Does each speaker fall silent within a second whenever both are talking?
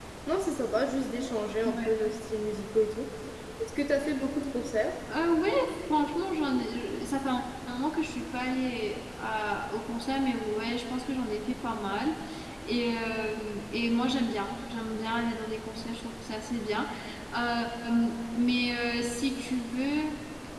Yes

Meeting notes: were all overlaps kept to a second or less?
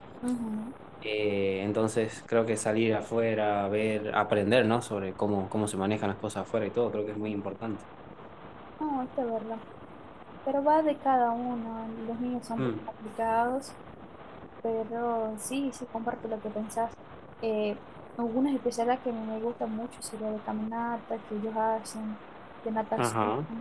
Yes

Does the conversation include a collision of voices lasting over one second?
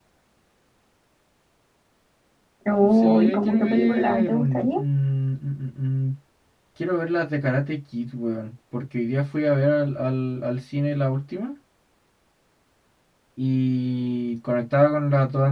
Yes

